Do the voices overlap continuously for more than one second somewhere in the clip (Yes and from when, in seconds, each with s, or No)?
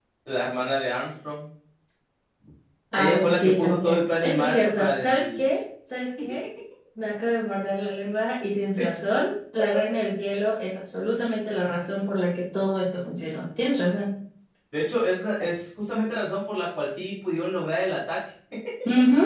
Yes, from 3.0 s